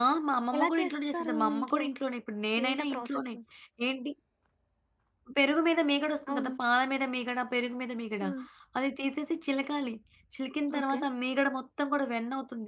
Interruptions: present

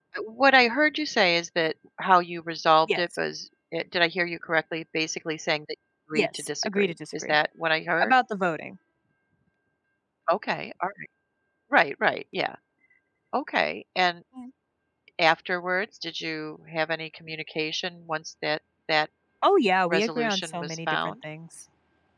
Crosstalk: present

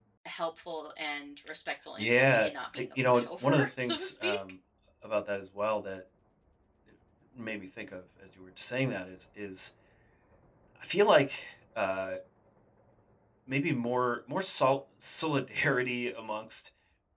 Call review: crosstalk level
present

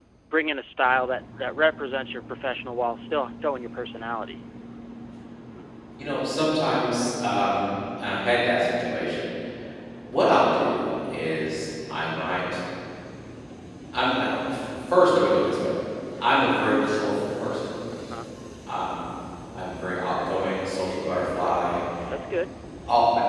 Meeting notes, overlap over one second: none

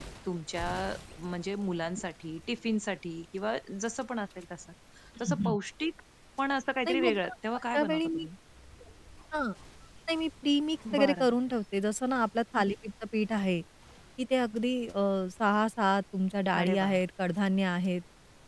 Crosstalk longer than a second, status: present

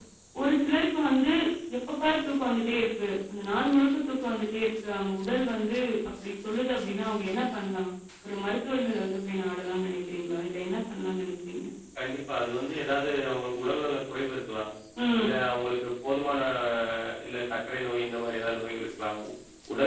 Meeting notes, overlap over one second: none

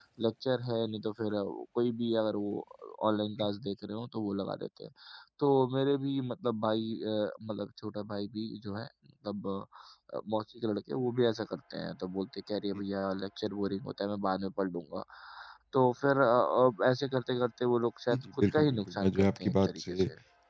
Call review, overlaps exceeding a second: present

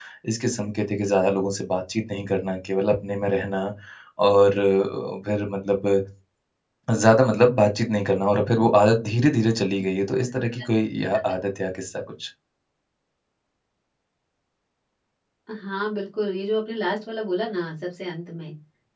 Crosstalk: none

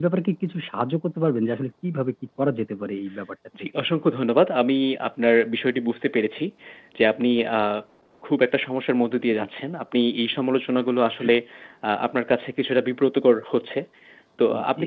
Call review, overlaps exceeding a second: none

